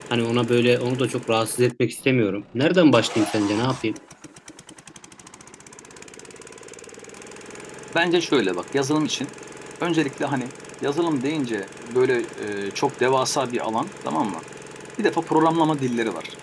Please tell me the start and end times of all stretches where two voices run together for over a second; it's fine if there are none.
none

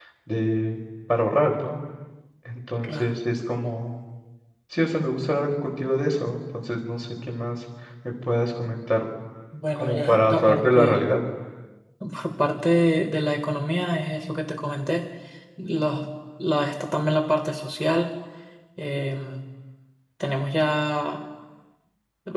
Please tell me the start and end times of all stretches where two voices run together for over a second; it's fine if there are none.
9.8-11.0

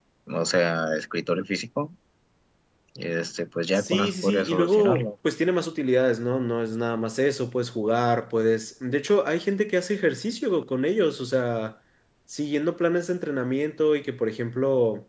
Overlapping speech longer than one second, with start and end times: 3.8-5.0

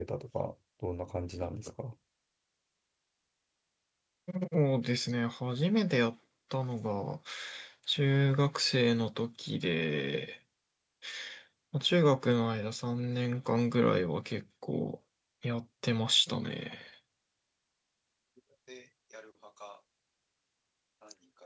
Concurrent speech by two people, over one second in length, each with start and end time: none

